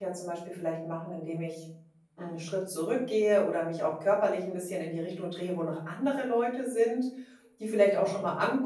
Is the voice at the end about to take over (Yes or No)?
No